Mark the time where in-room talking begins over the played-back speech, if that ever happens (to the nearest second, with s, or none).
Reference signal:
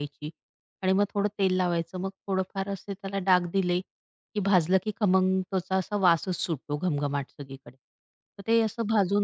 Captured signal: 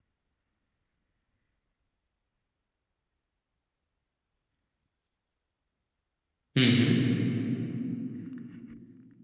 7 s